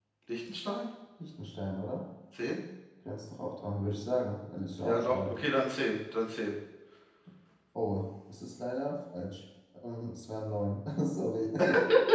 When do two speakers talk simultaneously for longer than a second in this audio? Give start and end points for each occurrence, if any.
none

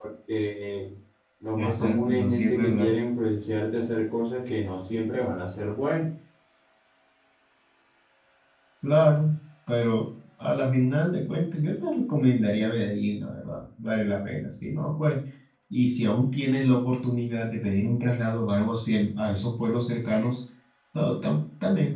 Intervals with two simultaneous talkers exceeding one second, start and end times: 1.6-2.9

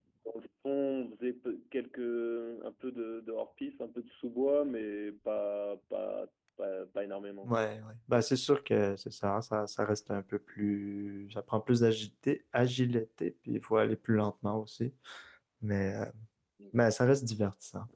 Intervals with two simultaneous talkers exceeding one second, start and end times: none

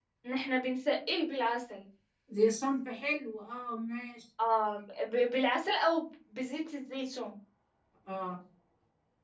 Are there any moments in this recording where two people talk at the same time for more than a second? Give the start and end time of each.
none

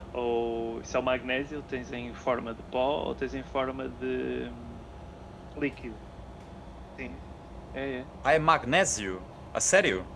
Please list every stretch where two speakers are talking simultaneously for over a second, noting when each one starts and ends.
none

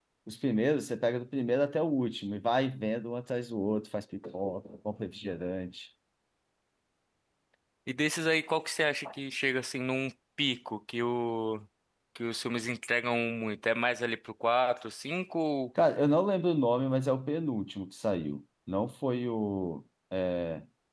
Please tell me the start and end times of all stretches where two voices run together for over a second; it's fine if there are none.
none

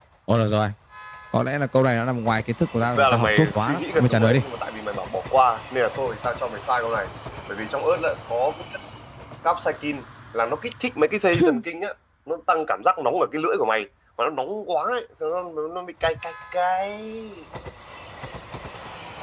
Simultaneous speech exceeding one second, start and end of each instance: 3.0-4.4

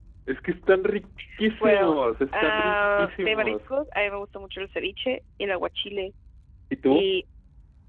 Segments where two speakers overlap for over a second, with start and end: 2.3-3.6

